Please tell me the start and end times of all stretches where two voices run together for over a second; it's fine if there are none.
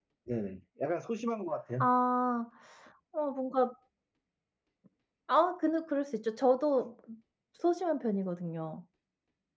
none

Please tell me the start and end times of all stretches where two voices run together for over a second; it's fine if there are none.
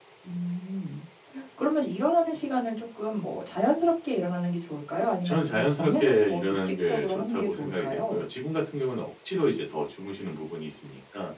5.2-8.2

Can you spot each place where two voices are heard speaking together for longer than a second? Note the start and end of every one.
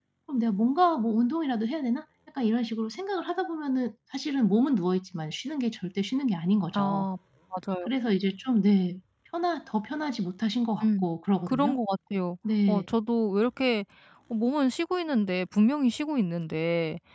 none

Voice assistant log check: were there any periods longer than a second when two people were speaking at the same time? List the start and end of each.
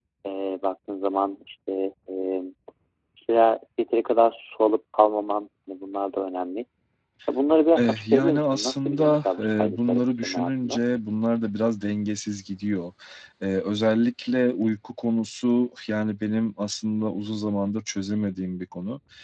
7.8-10.8

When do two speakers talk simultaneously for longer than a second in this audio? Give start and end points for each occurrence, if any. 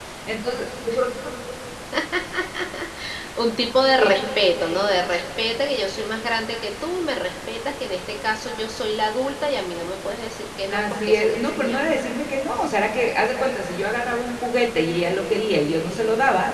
10.7-11.9

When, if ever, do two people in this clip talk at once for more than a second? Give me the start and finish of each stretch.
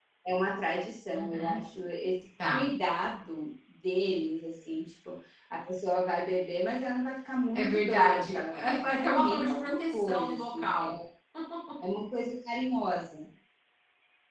7.5-10.9

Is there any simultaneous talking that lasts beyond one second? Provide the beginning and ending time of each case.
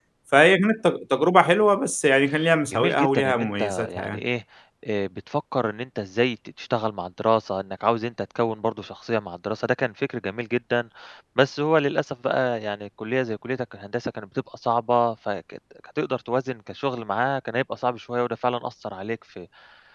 2.7-4.2

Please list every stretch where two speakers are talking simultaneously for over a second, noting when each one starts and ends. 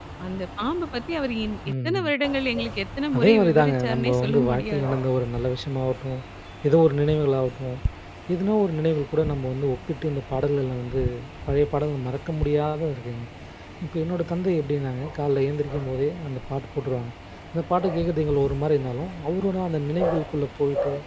3.1-4.9

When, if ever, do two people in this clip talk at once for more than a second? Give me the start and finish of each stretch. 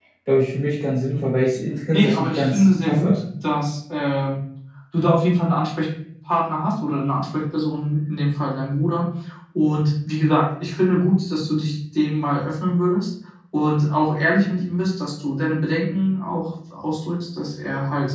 1.9-3.2

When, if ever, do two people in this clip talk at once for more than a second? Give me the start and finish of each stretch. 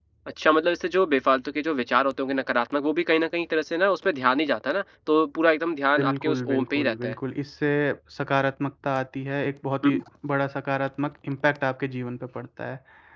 6.0-7.2

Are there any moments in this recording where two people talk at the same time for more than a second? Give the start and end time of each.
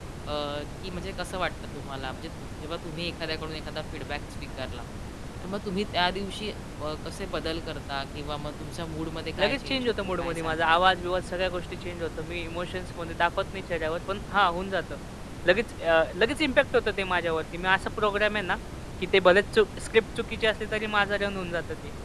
9.4-10.8

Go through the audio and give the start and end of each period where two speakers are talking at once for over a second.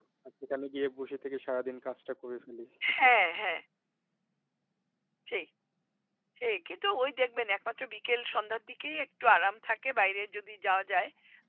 none

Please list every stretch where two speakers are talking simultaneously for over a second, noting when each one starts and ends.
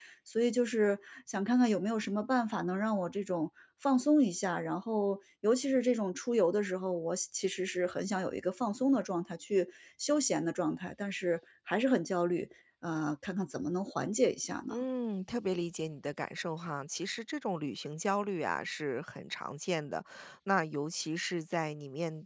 none

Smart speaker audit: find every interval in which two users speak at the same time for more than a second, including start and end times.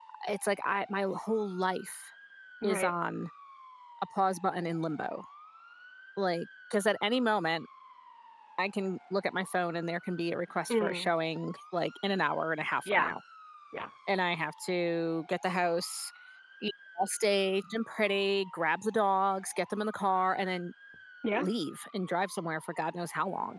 none

